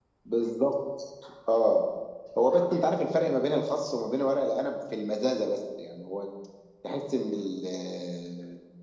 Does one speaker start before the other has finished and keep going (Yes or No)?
No